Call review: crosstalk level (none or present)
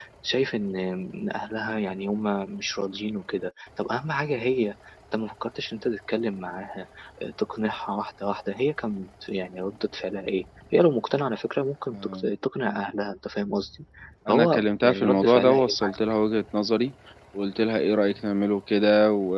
present